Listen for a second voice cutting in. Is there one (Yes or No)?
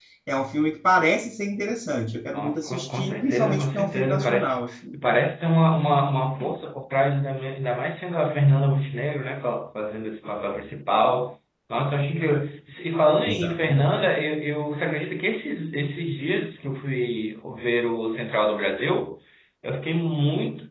Yes